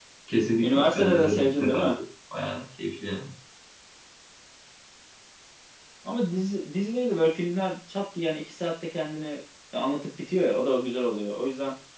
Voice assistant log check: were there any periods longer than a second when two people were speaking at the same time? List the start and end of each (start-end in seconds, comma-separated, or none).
0.6-2.0